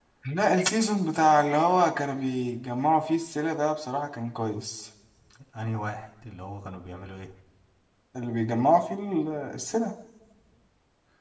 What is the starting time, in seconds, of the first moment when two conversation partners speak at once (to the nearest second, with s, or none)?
none